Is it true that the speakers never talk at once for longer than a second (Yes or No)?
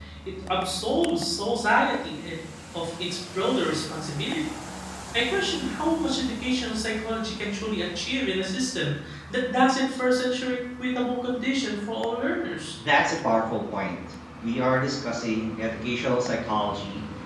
Yes